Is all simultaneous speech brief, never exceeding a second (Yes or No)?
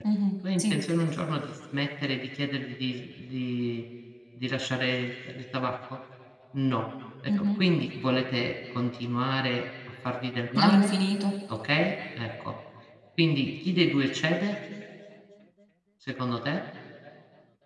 Yes